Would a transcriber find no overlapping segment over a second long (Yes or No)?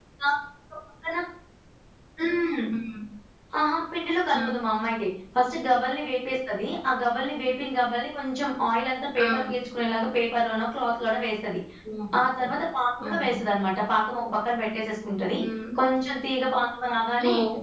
Yes